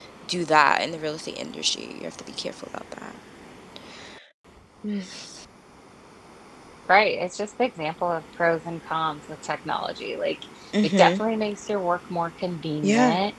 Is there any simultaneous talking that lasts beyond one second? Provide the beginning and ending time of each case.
none

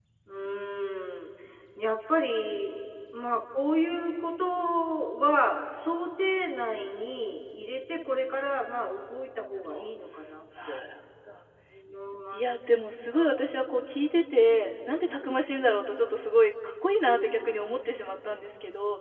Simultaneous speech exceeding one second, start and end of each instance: none

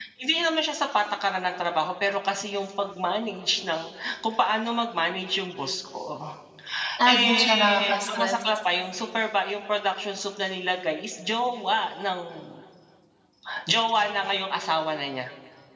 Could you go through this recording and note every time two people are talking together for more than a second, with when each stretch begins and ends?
7.1-8.4

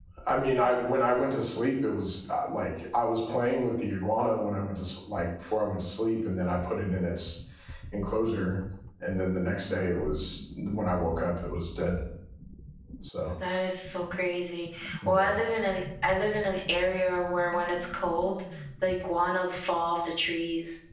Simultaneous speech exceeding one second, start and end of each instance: none

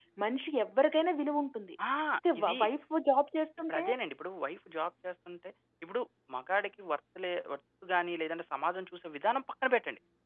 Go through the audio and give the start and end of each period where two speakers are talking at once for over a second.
none

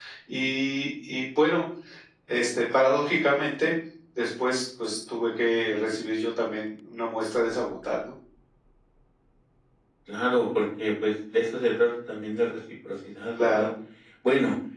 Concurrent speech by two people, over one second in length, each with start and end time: none

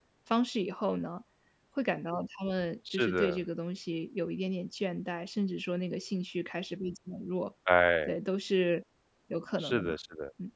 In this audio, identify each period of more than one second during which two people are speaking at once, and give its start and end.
none

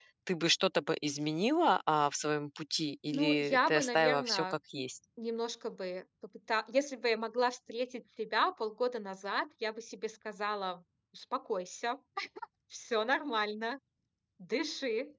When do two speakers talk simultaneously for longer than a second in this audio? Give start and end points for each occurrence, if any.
3.1-4.4

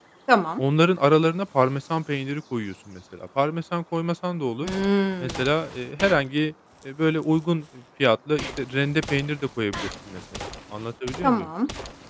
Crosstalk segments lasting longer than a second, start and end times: none

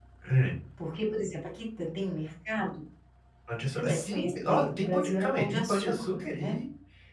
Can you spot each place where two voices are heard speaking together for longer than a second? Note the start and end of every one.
3.7-6.6

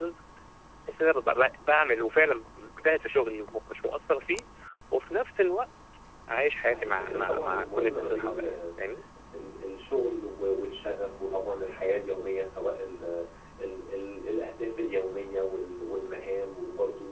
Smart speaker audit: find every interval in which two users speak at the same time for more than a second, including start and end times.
6.7-8.6

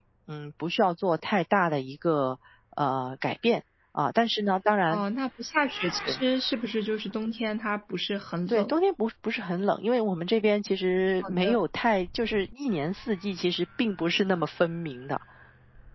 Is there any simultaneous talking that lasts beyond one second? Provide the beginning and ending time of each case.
none

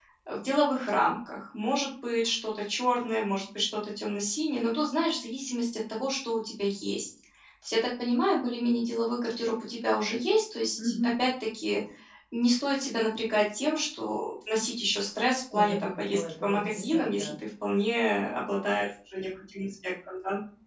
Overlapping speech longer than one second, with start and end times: 15.5-17.3

